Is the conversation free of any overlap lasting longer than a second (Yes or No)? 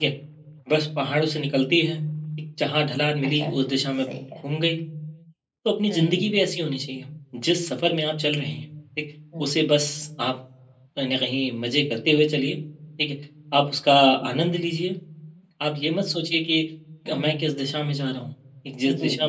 Yes